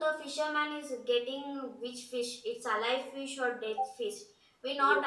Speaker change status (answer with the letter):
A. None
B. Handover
A